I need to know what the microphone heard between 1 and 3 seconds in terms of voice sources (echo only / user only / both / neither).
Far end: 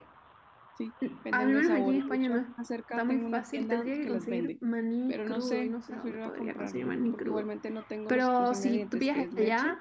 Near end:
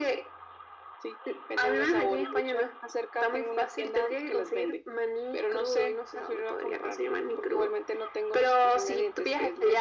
echo only